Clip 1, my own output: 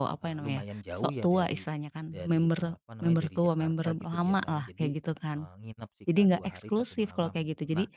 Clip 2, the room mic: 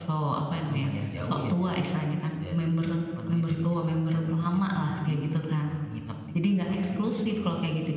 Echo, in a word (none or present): present